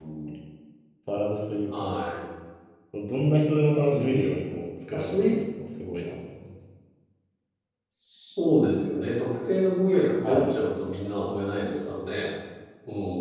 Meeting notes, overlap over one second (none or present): none